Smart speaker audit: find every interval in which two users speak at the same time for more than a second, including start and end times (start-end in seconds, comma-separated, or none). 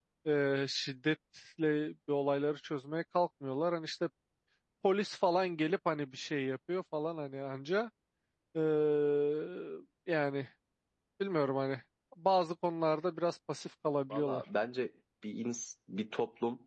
none